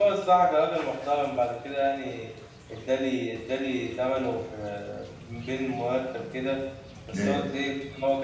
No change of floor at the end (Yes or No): Yes